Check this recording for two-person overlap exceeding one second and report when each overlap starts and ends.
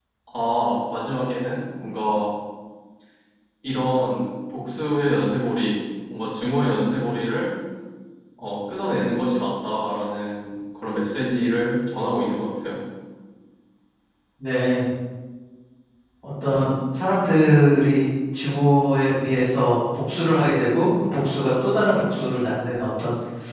none

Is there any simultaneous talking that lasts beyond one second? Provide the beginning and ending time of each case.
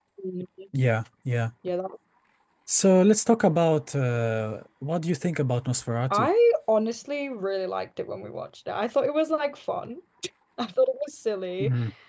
none

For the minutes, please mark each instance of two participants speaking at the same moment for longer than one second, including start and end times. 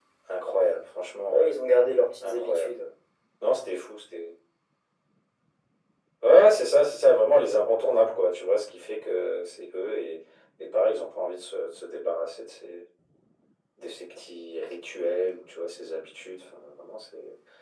none

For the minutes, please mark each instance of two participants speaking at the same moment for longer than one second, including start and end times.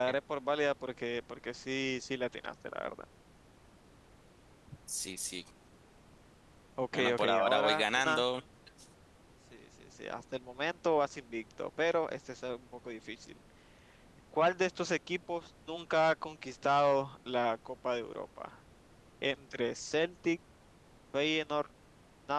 6.9-8.2

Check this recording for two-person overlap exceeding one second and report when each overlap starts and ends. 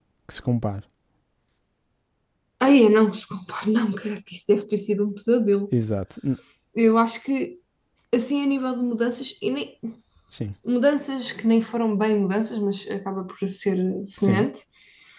none

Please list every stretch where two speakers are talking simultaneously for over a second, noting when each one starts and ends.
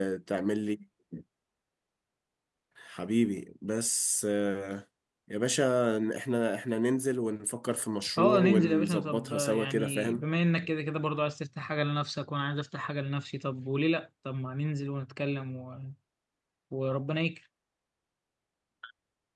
8.2-10.2

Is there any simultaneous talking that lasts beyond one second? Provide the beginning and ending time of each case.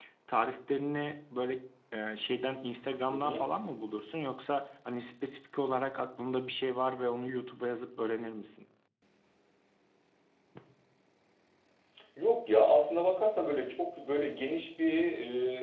none

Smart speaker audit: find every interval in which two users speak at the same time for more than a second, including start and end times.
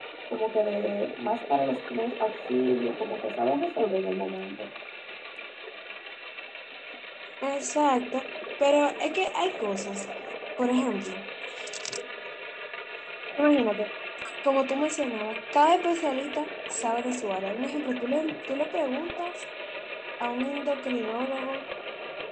none

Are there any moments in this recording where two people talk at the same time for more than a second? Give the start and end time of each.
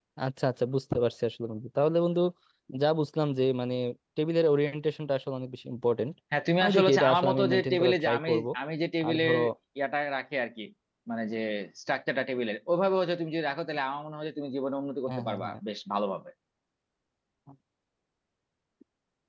6.6-8.4

